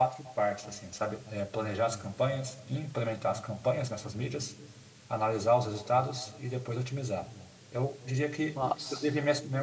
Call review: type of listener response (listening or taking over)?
listening